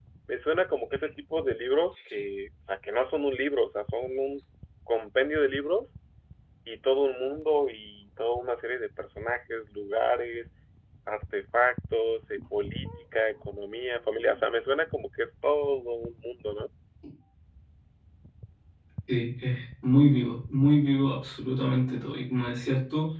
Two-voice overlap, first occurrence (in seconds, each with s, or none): none